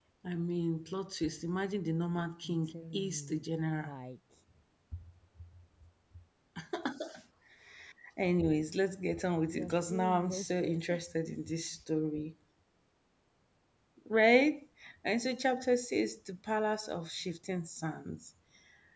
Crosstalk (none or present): present